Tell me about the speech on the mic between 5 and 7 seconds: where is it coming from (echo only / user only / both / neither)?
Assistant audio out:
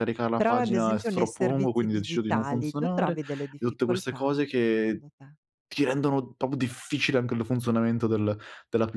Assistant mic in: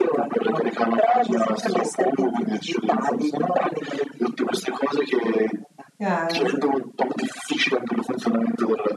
both